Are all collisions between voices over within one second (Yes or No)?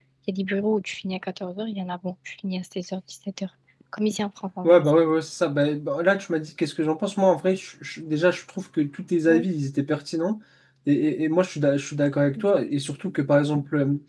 Yes